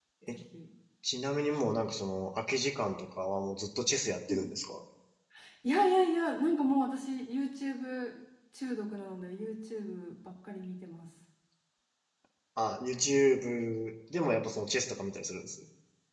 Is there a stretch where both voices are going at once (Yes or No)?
No